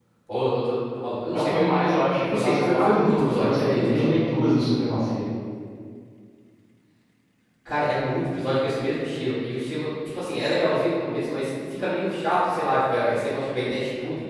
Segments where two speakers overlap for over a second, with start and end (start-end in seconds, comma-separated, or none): 2.3-4.2